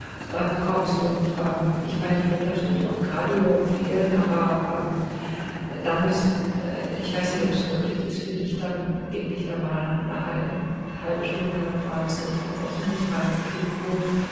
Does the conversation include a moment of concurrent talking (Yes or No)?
No